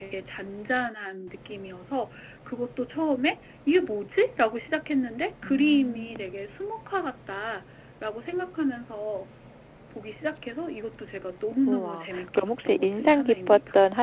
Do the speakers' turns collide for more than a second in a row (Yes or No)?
Yes